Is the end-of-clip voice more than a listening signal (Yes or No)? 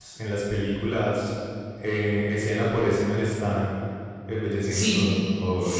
Yes